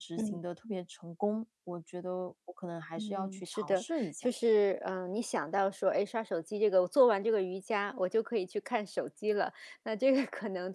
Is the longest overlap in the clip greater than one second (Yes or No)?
Yes